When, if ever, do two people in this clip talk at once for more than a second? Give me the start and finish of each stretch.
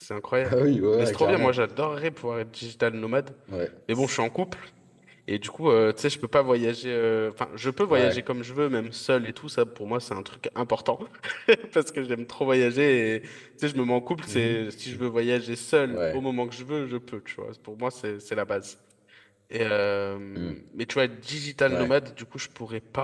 none

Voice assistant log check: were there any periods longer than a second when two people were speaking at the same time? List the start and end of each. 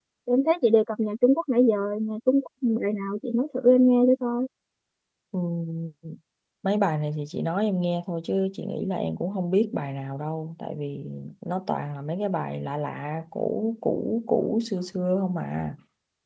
none

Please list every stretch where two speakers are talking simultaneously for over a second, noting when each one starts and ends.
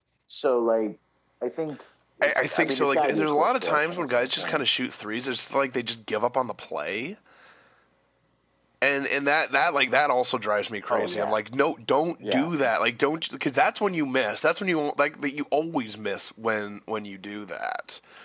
2.2-4.6

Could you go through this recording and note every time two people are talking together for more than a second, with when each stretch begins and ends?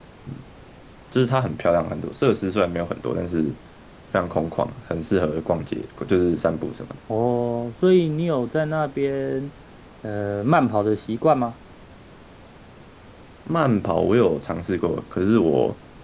none

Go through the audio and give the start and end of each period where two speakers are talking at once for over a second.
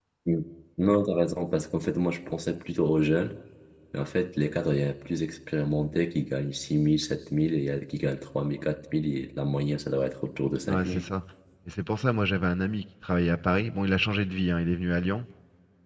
none

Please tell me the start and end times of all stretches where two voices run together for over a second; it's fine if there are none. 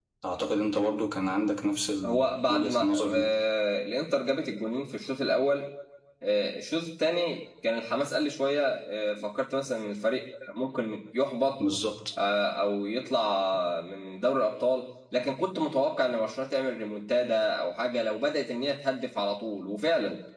2.0-3.3

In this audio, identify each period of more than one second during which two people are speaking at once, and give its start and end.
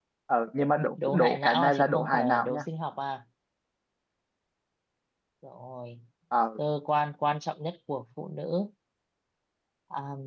1.1-2.6

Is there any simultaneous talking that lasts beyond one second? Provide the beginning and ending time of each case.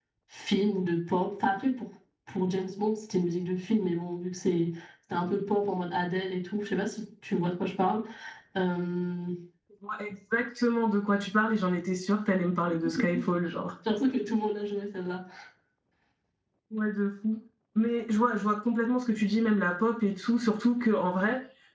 none

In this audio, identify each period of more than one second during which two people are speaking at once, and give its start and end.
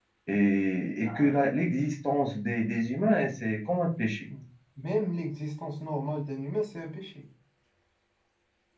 none

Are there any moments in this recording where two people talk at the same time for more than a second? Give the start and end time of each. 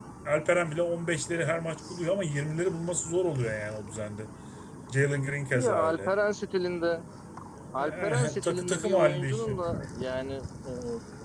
7.8-9.5

